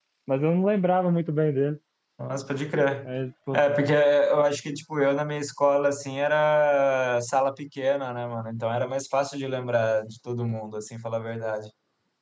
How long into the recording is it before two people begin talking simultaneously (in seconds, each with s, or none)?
none